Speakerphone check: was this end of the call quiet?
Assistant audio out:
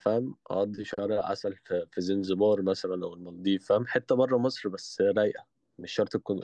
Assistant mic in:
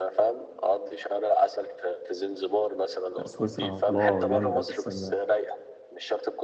No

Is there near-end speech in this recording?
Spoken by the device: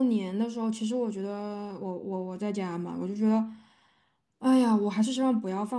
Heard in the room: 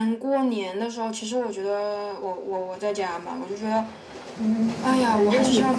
Yes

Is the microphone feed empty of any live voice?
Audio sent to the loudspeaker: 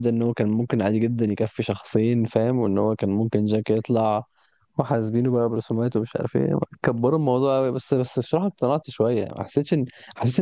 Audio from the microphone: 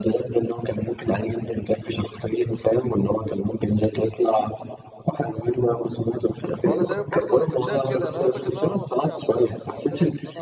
No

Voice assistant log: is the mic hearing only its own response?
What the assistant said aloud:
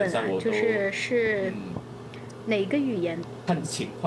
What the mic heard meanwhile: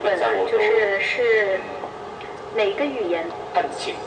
Yes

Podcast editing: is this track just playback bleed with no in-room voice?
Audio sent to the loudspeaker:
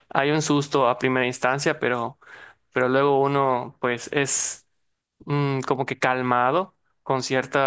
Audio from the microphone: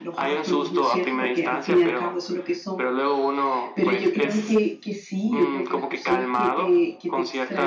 No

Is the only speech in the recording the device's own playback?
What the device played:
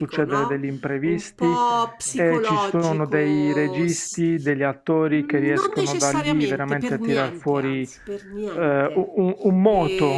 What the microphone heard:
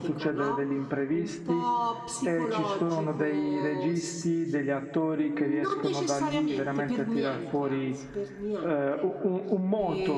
Yes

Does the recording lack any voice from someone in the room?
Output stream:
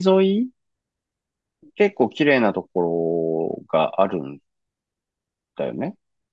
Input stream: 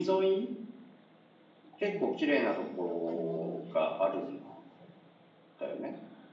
No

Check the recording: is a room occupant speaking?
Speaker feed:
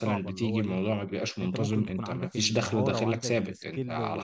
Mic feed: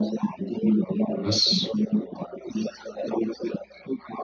Yes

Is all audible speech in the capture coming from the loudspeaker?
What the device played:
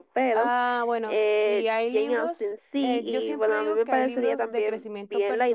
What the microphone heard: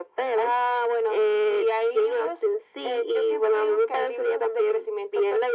Yes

